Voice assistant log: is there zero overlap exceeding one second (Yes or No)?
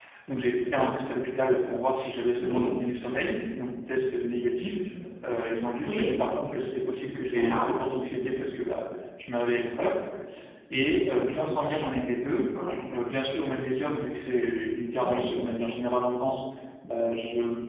Yes